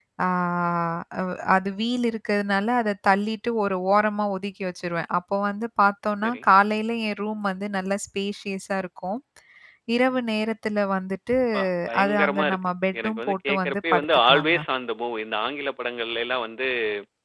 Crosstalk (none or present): present